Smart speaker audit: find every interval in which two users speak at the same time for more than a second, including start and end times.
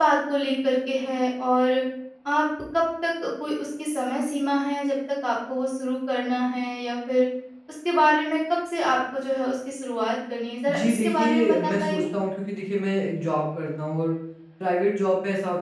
10.7-12.0

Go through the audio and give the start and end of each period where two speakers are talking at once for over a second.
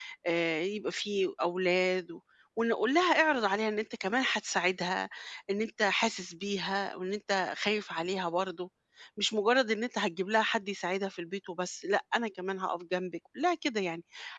none

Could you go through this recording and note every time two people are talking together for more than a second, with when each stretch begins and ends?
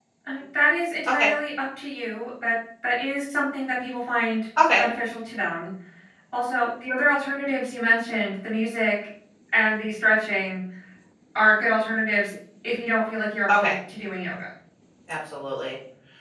none

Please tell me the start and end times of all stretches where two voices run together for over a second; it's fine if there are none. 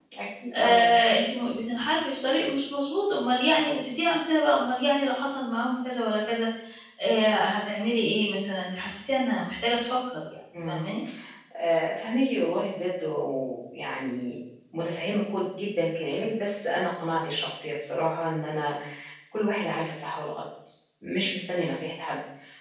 none

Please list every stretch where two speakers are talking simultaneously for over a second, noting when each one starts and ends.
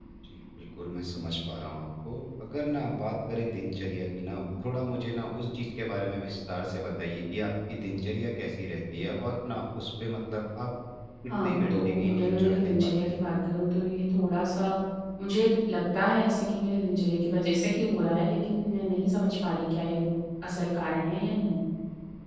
11.3-13.2

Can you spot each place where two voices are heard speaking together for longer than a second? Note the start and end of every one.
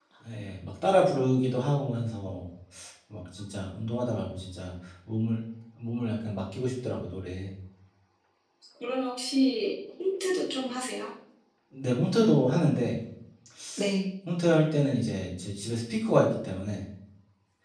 none

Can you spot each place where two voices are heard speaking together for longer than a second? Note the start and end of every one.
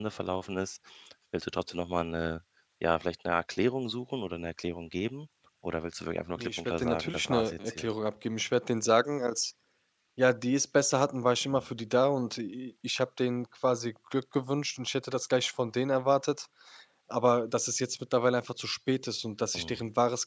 6.4-7.9

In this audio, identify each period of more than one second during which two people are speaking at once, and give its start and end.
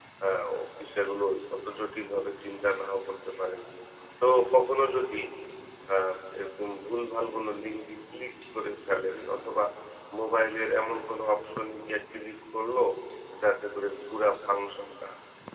none

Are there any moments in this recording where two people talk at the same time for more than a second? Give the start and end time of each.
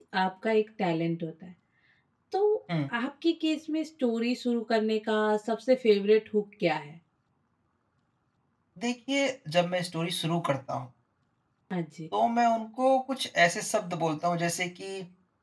none

